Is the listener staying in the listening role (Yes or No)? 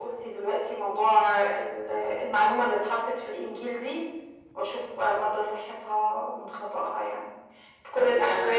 Yes